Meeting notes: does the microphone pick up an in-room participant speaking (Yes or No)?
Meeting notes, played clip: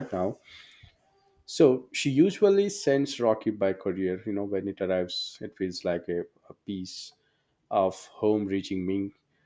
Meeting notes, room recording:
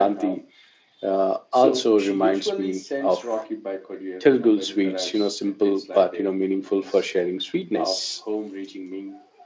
Yes